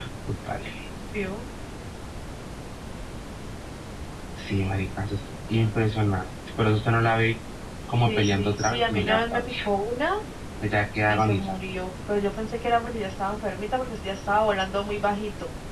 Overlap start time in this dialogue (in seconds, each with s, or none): 8.1 s